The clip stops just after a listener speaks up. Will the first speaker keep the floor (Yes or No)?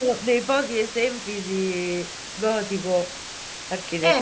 No